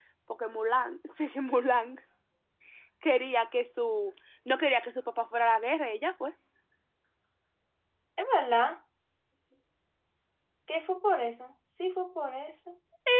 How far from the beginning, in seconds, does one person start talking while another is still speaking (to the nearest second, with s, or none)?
none